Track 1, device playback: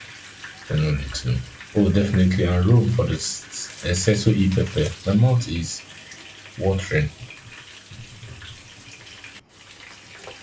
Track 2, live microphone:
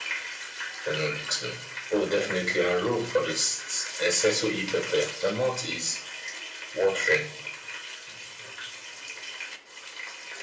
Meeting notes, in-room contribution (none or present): none